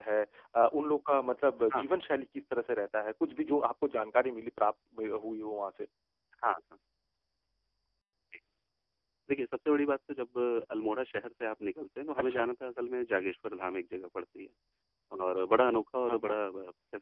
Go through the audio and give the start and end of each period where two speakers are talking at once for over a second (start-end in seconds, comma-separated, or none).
none